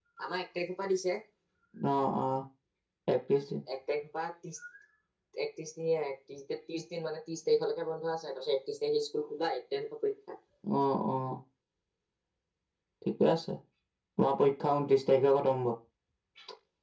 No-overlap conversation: Yes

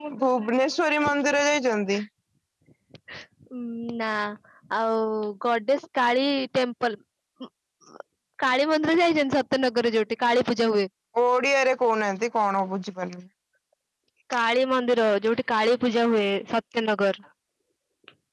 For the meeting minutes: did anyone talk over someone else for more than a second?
No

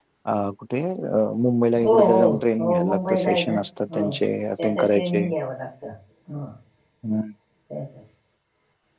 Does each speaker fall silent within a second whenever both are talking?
No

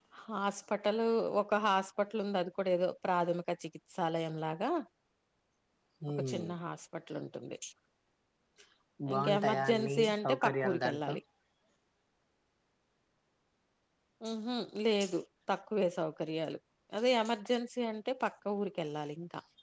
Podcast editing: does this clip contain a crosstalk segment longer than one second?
Yes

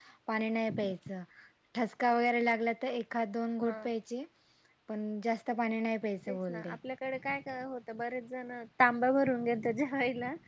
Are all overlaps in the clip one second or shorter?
Yes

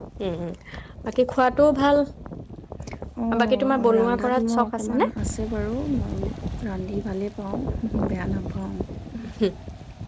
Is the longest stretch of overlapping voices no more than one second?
No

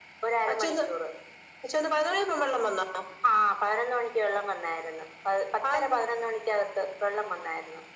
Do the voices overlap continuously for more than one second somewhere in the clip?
No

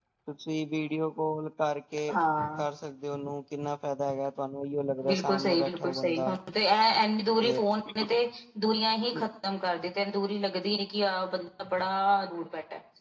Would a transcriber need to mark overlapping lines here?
Yes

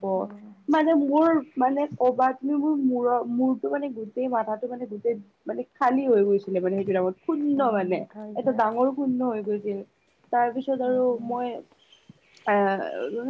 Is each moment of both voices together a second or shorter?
Yes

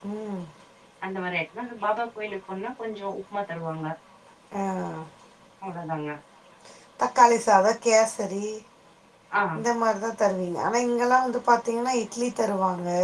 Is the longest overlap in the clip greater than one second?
No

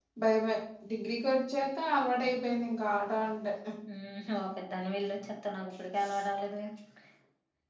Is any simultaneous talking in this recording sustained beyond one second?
No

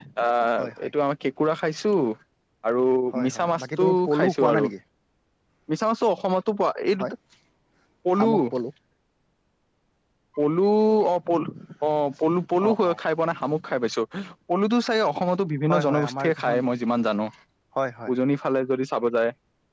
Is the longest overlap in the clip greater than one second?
Yes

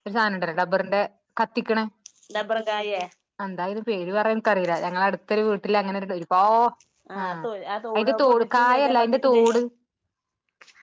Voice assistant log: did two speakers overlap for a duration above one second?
Yes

